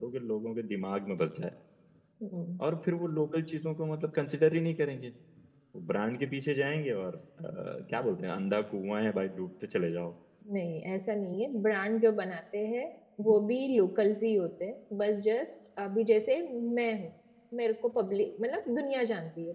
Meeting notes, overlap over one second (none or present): none